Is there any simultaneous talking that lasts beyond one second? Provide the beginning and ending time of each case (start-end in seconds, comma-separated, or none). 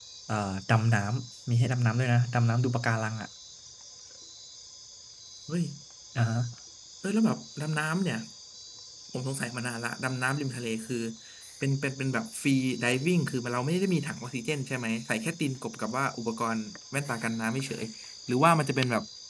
none